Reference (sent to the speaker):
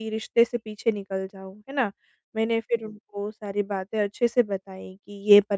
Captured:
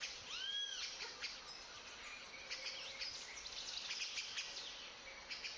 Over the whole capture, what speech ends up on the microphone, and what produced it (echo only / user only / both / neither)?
neither